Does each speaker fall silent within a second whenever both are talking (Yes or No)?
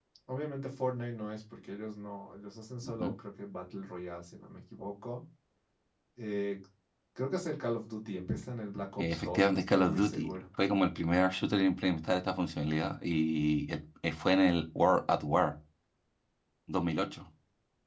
No